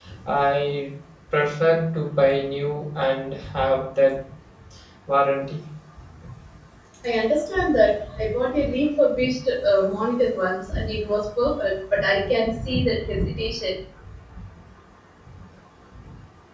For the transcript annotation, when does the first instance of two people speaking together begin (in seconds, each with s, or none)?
none